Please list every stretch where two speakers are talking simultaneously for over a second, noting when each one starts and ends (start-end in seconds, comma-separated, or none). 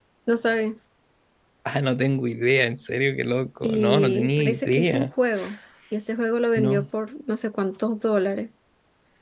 3.6-5.1